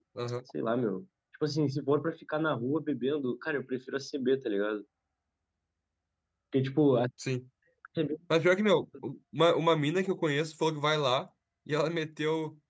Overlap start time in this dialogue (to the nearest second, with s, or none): none